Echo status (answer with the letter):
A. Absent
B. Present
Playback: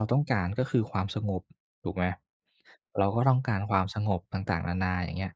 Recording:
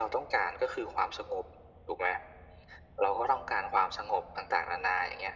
B